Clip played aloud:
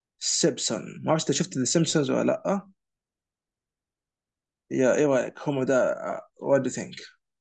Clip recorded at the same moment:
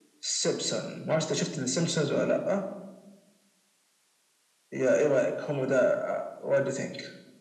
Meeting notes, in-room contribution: none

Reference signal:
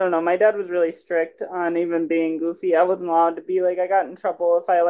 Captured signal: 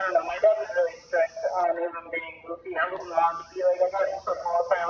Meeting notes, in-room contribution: none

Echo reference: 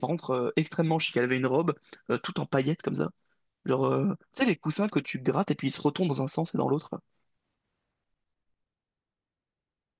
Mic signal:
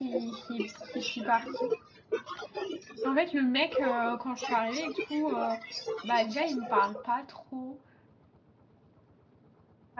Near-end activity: present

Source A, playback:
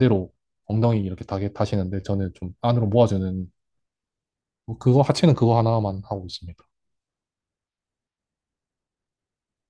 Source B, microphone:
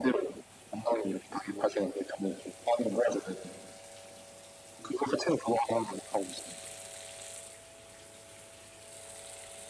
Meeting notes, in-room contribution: none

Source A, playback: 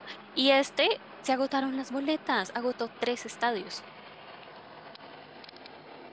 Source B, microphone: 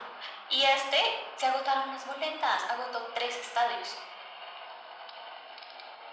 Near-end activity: none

